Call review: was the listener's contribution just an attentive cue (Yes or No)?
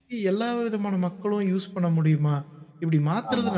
Yes